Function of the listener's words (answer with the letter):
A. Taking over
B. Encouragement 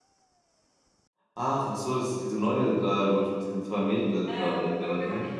A